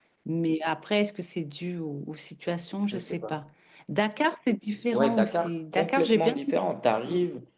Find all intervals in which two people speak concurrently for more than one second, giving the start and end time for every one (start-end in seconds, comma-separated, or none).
4.9-6.6